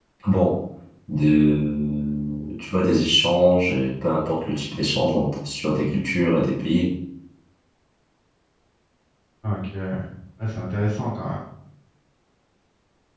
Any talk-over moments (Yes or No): No